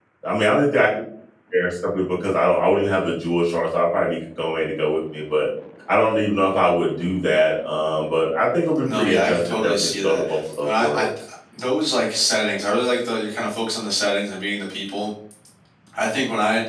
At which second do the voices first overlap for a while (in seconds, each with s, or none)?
8.8 s